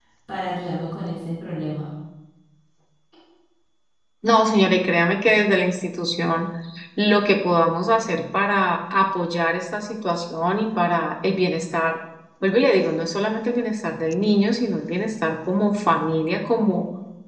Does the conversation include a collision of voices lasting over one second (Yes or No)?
No